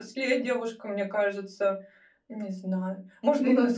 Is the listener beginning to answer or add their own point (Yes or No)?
No